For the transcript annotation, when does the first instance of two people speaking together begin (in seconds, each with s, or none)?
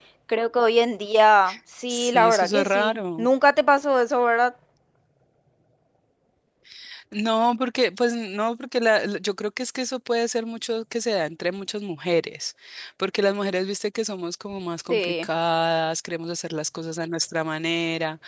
1.9 s